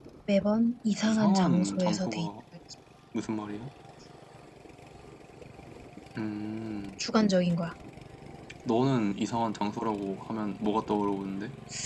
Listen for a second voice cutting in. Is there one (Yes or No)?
Yes